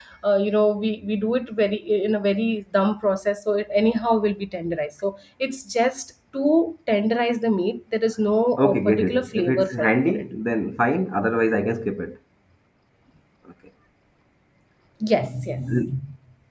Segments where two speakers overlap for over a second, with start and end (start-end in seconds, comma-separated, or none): 8.6-10.2